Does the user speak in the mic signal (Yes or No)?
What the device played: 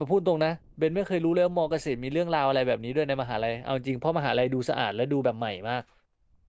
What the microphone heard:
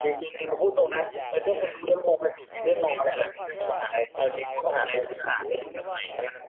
Yes